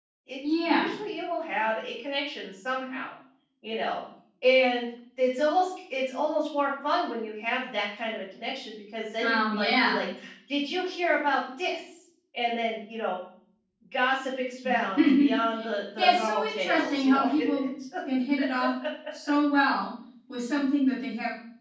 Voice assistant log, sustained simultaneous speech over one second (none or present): present